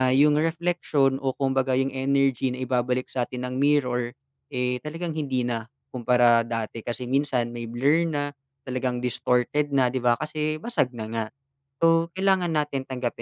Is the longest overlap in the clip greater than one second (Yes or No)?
No